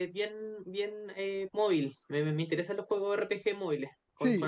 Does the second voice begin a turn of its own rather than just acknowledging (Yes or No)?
Yes